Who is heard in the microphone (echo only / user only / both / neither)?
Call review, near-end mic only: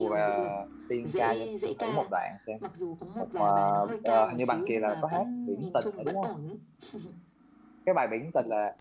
both